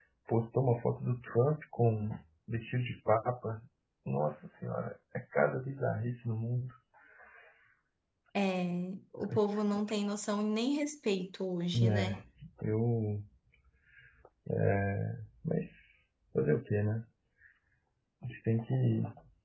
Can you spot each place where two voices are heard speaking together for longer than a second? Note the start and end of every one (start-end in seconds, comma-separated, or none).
none